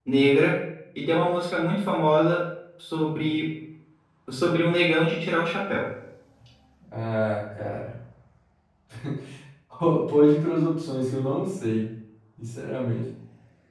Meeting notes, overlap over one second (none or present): none